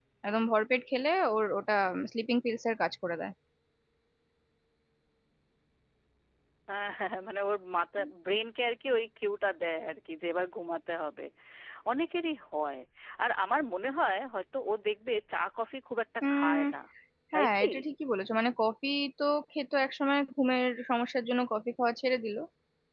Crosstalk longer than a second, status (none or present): none